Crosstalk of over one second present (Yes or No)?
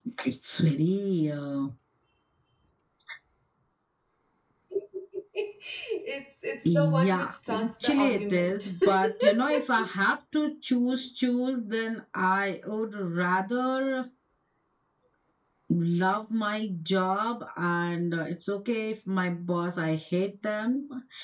Yes